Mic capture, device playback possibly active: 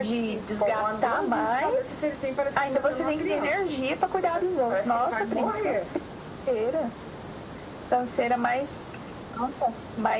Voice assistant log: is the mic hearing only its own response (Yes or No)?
Yes